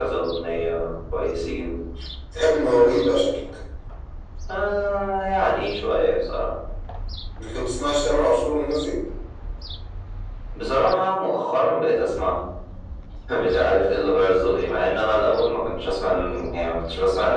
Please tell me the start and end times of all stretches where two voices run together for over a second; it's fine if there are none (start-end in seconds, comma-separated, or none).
none